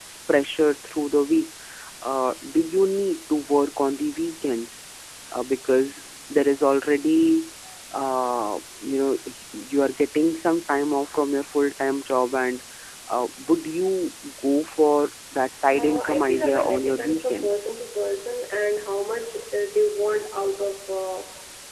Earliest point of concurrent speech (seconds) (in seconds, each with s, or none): 15.7 s